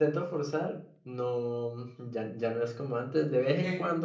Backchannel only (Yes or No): Yes